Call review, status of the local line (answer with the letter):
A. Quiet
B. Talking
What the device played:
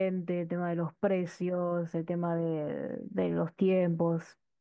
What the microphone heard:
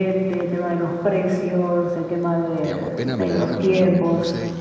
B